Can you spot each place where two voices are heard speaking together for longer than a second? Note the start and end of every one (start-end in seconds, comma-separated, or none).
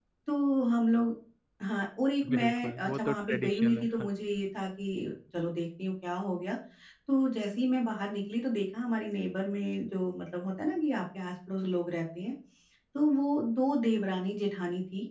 2.3-4.1